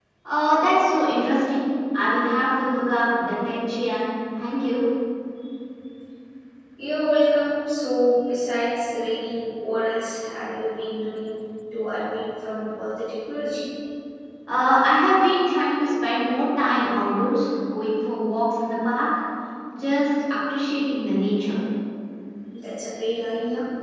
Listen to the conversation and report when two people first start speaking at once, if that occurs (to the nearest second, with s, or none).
none